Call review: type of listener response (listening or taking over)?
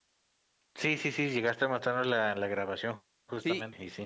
taking over